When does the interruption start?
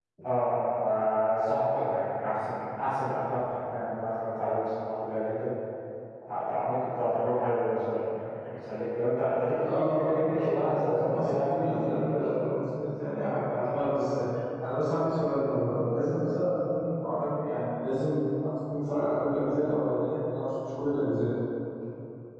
9.6 s

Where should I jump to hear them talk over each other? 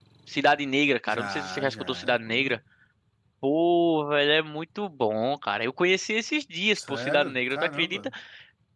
1.1 s

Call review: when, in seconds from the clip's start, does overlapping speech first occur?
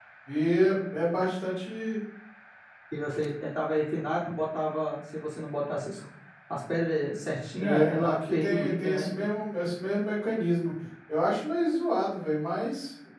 7.6 s

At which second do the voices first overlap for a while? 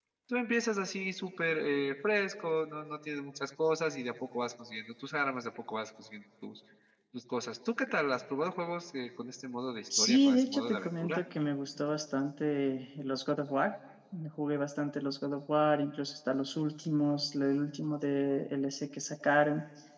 9.9 s

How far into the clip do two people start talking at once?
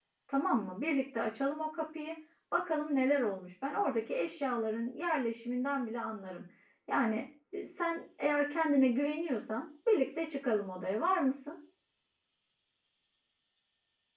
none

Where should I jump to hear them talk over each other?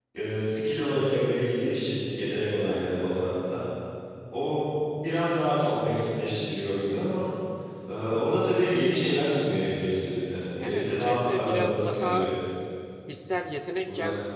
10.6 s

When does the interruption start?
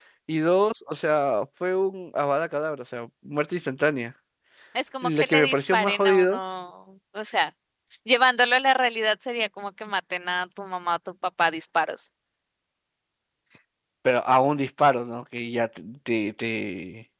5.0 s

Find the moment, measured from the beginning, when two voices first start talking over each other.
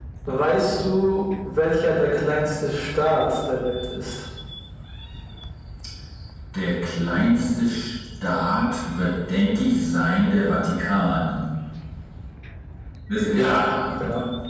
none

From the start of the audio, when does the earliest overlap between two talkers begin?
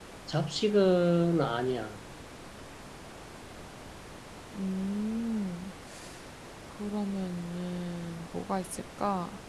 none

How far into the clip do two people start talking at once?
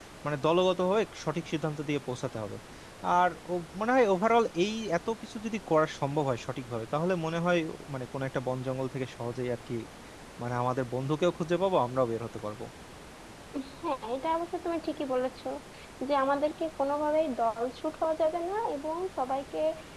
none

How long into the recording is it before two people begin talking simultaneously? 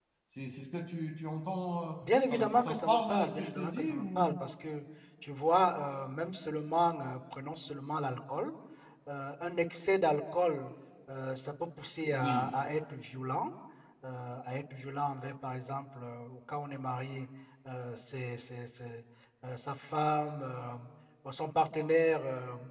2.0 s

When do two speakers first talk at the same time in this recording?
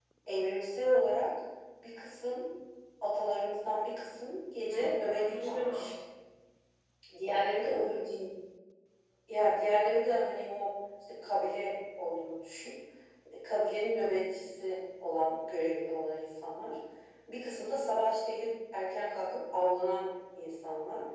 4.7 s

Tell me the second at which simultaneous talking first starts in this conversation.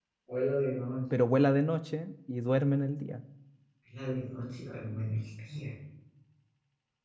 none

